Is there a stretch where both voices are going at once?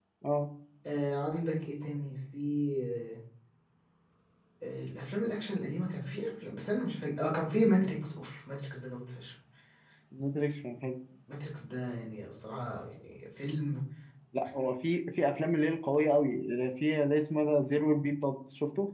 No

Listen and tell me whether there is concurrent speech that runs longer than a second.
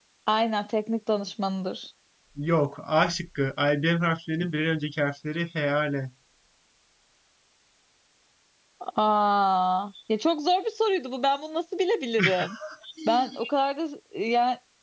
No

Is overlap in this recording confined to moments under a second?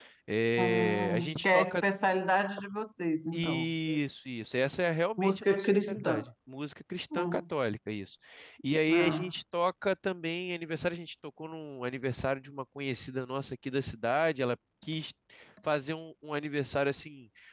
No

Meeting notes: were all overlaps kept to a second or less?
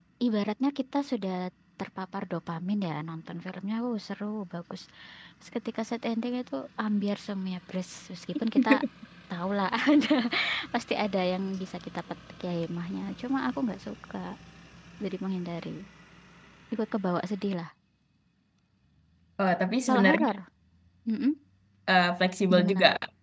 Yes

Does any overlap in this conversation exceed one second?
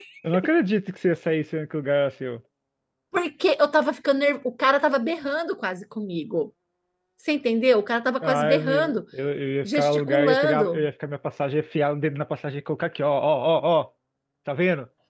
Yes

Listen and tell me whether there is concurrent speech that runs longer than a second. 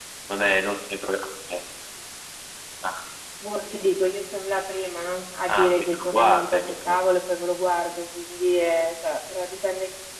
Yes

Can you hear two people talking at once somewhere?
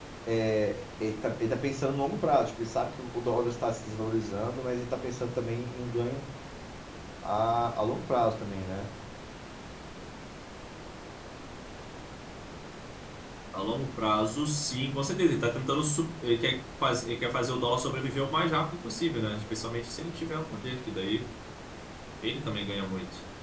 No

